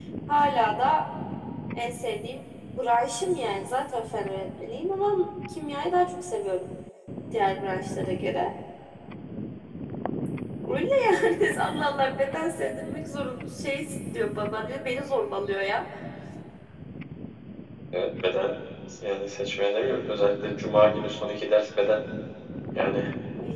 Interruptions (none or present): none